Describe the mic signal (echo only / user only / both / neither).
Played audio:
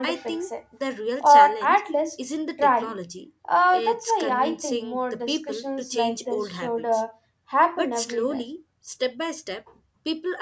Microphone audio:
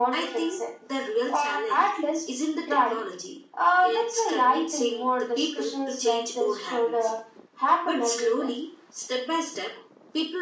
echo only